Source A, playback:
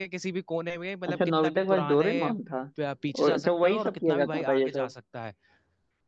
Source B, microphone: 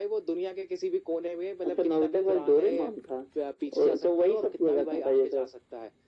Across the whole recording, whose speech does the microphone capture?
echo only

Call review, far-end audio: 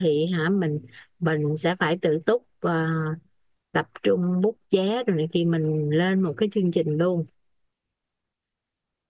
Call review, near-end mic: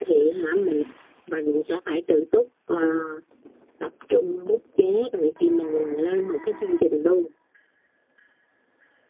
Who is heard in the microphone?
echo only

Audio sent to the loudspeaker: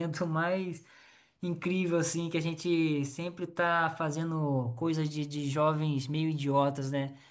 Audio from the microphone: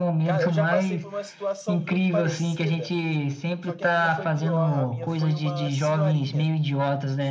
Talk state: both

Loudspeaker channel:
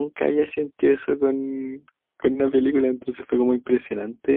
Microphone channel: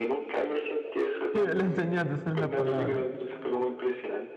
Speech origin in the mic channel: both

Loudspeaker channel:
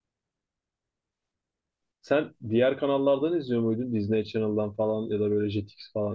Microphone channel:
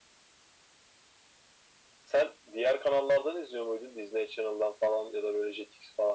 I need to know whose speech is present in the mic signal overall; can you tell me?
echo only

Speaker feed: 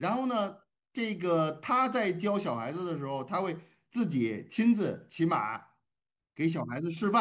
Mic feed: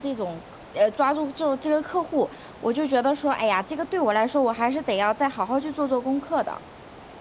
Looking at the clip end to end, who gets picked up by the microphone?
user only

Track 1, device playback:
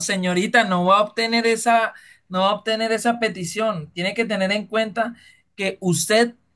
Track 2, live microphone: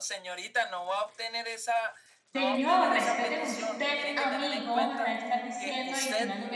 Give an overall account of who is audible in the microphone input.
both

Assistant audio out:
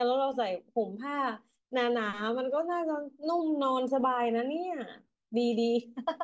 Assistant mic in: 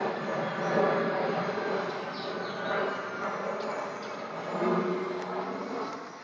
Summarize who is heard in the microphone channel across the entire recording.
neither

